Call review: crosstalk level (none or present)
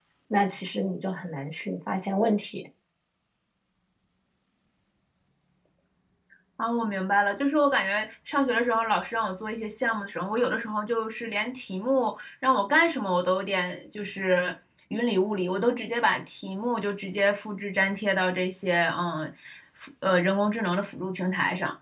none